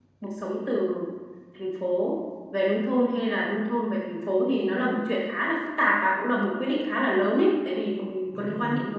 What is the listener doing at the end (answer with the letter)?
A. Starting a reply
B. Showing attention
B